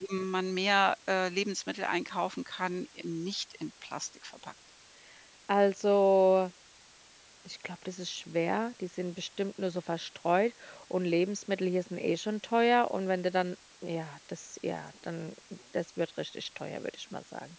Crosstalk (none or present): none